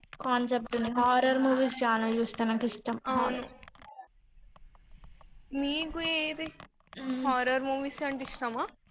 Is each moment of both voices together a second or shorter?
Yes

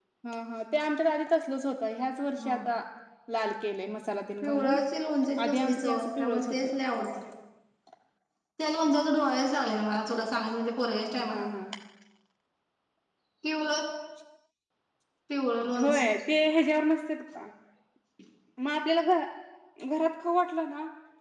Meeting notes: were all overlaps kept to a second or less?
No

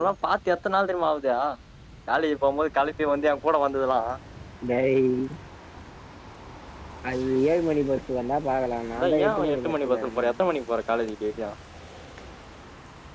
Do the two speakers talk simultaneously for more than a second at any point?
Yes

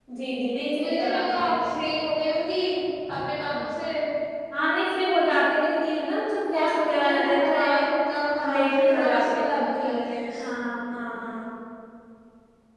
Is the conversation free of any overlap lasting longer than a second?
No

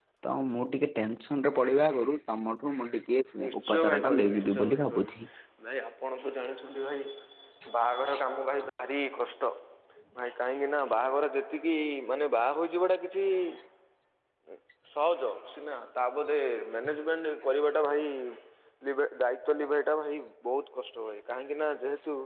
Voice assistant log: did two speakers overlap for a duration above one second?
Yes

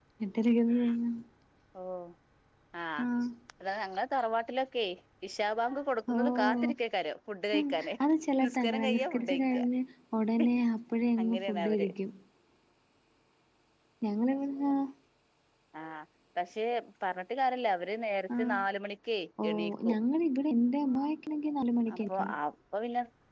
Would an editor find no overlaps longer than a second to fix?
No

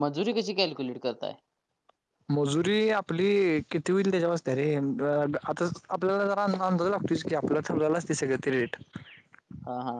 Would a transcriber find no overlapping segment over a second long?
Yes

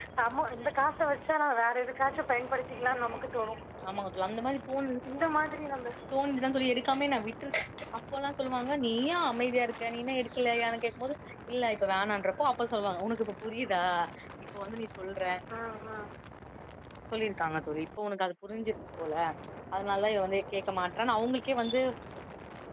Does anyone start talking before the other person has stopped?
No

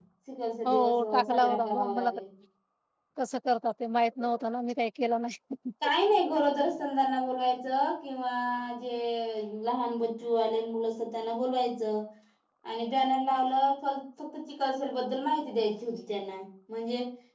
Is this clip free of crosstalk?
No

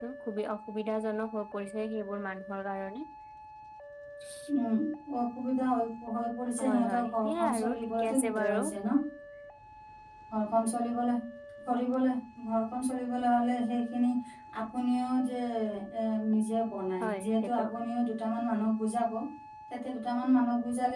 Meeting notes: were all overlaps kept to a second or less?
No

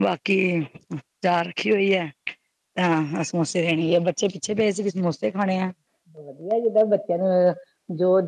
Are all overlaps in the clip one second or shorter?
Yes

